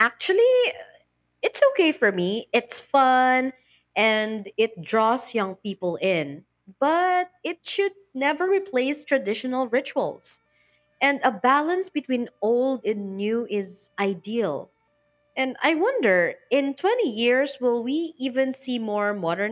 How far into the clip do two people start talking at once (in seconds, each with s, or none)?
none